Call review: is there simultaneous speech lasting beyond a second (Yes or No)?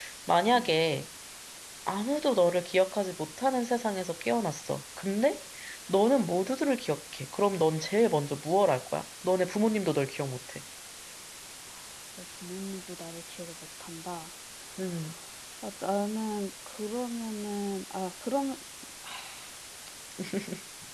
No